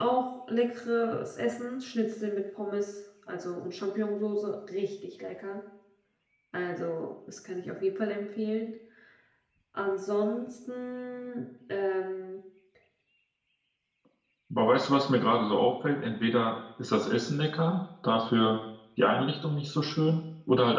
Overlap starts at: none

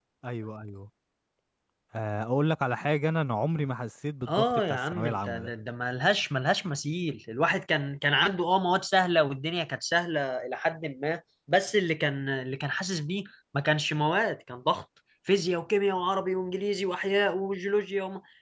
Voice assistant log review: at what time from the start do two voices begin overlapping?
4.3 s

